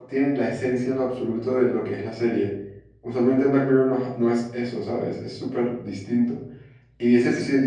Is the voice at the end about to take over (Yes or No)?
No